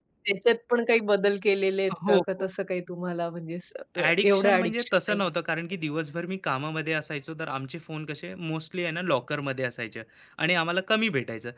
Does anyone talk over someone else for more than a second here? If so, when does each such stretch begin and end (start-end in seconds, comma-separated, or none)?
4.0-5.3